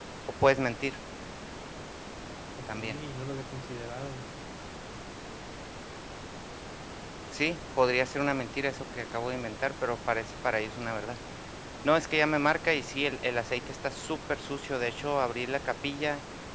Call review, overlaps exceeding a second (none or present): none